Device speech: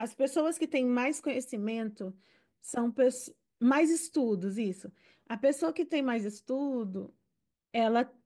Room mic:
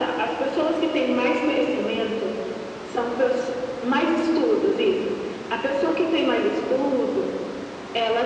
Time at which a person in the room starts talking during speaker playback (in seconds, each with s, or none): none